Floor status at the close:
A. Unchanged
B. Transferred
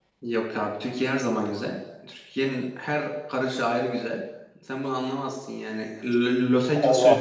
B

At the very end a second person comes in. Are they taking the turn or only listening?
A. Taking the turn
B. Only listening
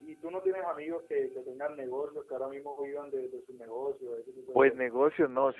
A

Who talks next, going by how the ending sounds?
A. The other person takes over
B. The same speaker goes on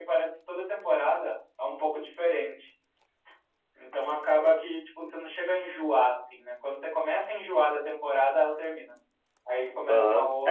A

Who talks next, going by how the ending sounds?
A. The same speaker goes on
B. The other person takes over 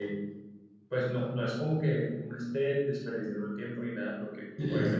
A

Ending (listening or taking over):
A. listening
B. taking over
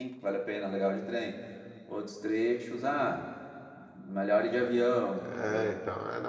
B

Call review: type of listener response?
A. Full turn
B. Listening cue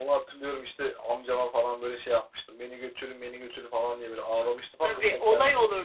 A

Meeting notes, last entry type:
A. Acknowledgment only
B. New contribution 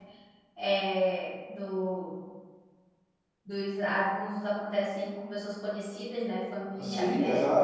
B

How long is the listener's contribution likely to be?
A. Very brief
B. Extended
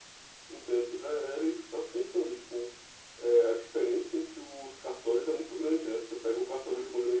A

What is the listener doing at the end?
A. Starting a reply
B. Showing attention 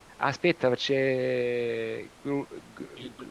A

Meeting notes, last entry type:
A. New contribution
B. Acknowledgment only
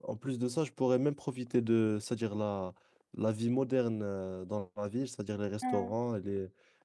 B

